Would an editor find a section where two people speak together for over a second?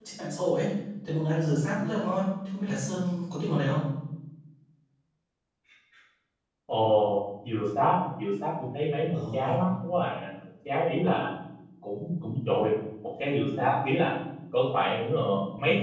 No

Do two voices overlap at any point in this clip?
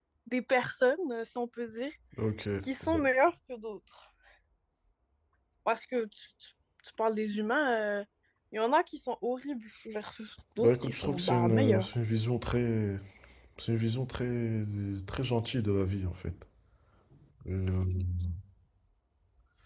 Yes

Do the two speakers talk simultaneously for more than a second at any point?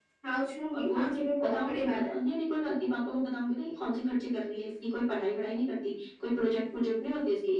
Yes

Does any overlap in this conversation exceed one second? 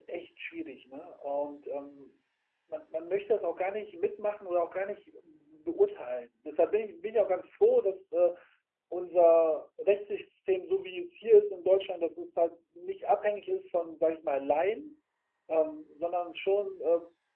No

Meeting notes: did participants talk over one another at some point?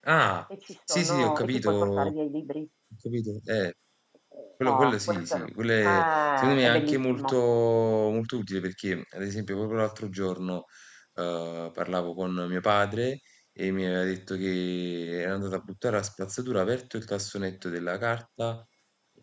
Yes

